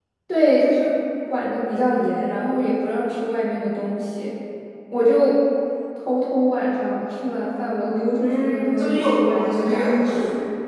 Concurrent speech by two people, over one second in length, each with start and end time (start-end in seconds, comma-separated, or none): 8.2-10.0